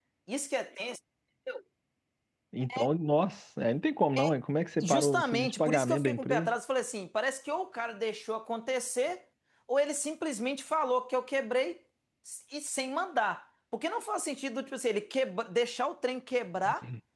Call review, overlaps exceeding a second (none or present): present